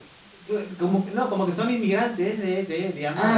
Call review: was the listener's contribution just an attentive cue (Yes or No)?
No